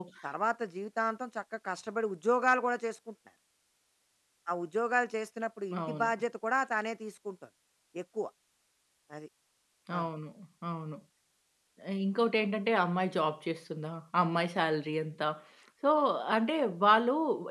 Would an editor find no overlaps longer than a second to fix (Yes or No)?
Yes